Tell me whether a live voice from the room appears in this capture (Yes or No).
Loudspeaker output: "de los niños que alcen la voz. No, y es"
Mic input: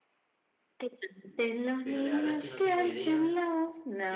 Yes